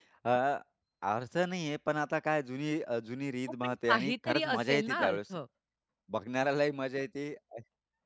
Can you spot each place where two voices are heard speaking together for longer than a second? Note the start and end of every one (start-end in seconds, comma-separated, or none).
3.6-5.2